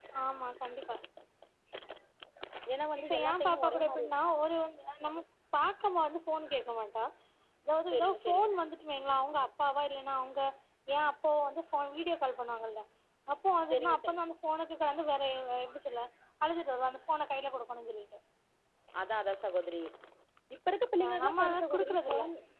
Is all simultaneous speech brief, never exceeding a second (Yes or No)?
No